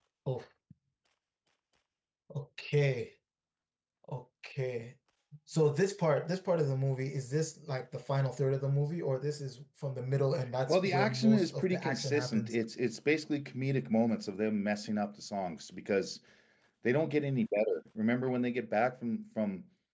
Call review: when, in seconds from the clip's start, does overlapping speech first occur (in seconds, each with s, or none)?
10.7 s